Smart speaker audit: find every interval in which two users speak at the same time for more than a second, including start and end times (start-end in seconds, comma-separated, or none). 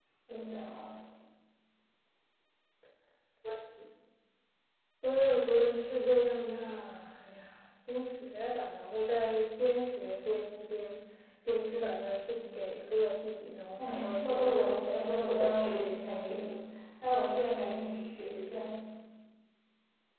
13.8-15.7